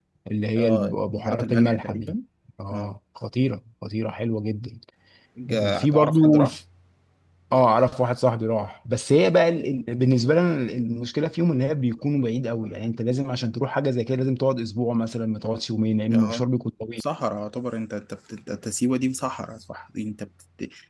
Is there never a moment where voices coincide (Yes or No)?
No